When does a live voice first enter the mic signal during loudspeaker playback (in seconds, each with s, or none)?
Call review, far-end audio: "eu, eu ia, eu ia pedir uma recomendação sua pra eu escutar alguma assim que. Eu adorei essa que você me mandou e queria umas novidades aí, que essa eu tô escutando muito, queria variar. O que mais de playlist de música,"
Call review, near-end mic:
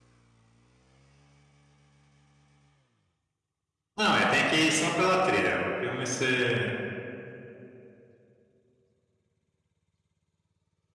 4.0 s